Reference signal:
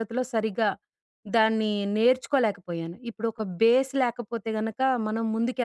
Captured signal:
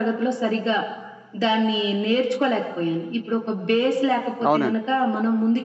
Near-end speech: present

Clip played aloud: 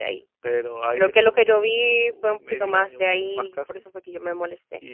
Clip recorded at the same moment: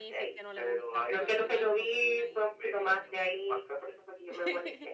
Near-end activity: present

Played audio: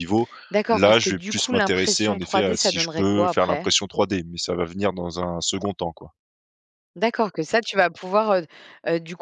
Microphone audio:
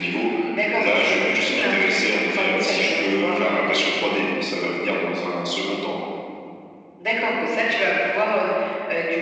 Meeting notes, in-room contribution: none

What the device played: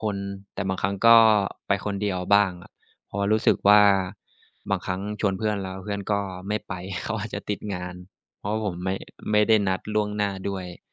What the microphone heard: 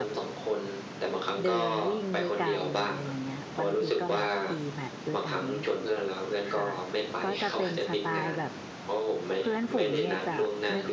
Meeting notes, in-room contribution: present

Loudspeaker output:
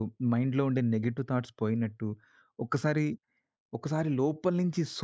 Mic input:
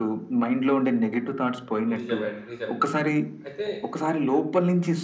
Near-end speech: present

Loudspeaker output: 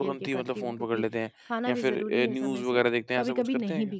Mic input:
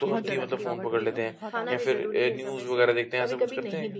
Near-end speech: present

